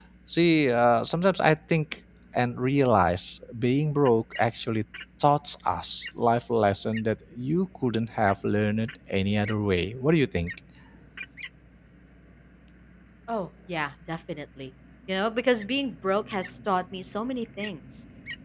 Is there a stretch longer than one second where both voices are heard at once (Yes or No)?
No